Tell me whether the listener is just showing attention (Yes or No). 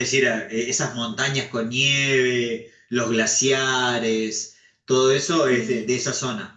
Yes